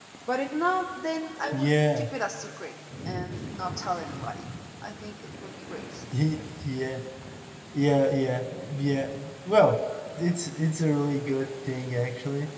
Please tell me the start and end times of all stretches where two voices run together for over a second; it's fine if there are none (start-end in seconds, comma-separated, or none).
none